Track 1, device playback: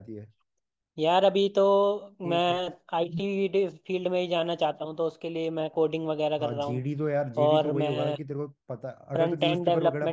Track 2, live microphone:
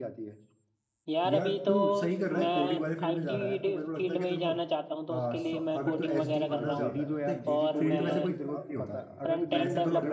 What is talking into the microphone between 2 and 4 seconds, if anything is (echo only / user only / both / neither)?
both